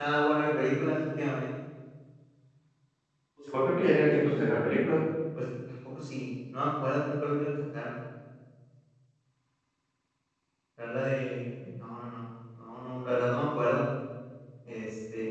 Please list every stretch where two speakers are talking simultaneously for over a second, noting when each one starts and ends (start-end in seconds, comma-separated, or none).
none